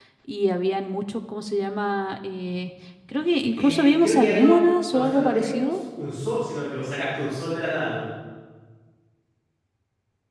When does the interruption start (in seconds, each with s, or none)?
3.6 s